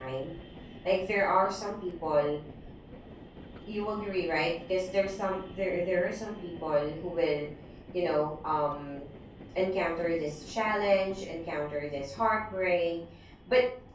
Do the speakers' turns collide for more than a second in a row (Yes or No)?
No